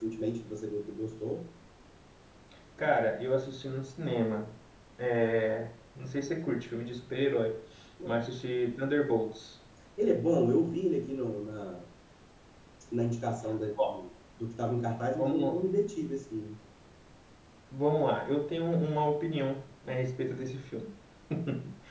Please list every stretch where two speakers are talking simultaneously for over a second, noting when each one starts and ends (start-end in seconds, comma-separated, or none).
none